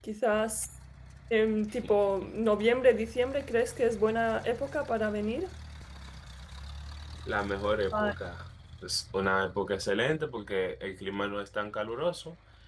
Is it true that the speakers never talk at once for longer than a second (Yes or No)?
Yes